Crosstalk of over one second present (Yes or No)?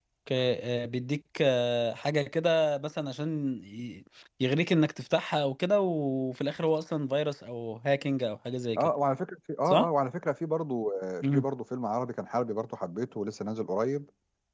No